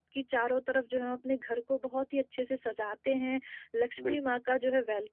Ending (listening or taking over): listening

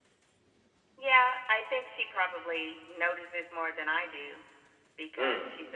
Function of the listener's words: listening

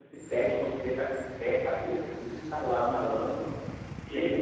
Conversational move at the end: taking over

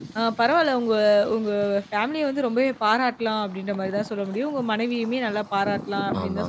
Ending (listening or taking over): listening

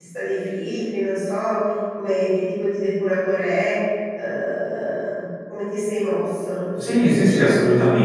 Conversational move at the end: taking over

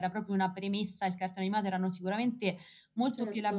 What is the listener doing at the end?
listening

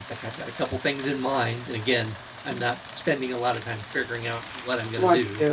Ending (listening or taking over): taking over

